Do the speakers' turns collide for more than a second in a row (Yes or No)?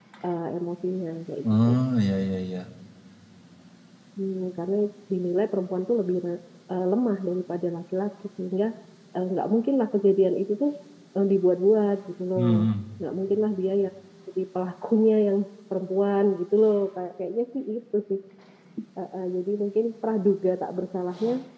No